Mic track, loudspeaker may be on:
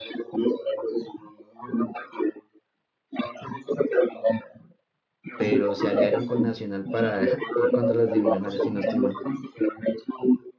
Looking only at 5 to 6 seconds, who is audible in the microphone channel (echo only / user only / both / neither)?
both